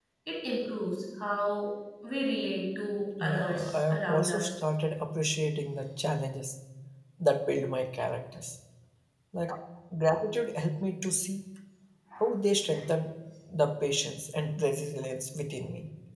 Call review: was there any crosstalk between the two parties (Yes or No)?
Yes